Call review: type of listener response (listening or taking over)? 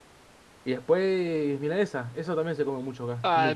taking over